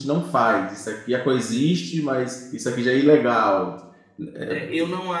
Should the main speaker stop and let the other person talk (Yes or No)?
Yes